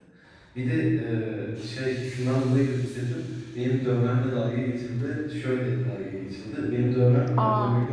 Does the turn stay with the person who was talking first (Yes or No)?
Yes